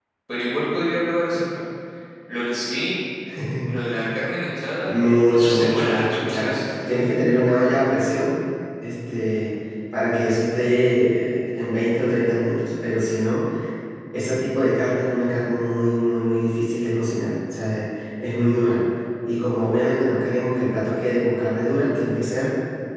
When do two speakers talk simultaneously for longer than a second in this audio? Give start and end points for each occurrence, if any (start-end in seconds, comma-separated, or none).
5.3-7.0